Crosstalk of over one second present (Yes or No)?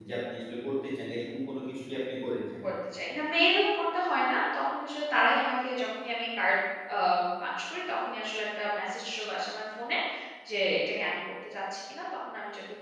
No